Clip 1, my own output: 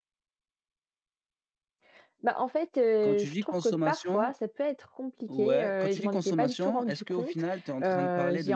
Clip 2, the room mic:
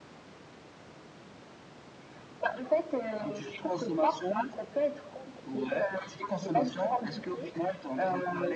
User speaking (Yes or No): No